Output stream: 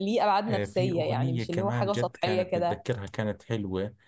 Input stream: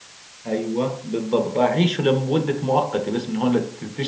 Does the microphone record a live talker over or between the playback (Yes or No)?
Yes